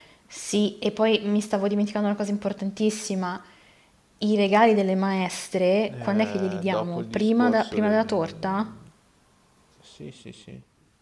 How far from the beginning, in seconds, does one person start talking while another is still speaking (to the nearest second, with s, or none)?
6 s